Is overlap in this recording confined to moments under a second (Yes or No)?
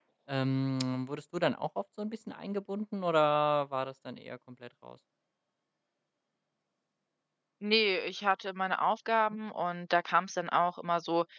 Yes